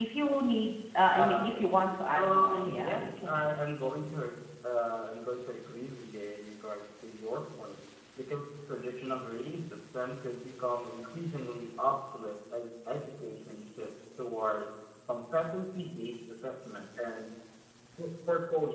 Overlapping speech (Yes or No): Yes